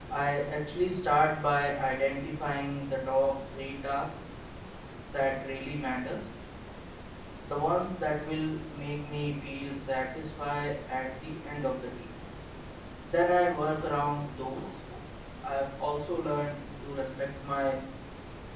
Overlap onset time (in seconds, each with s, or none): none